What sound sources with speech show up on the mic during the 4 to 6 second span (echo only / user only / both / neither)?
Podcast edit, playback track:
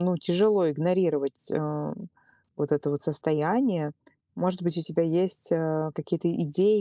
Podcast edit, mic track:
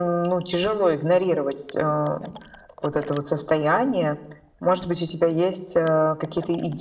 echo only